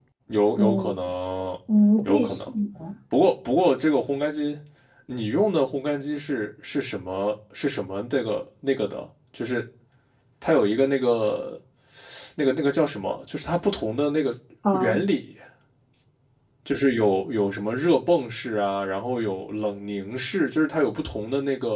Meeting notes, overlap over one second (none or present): none